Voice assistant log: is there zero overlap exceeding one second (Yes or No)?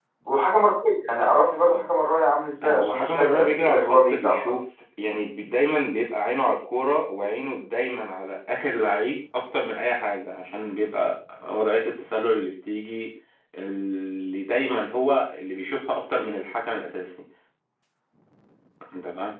No